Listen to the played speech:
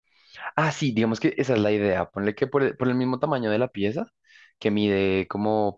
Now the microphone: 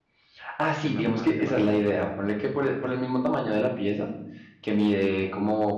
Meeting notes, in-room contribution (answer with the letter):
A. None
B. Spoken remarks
B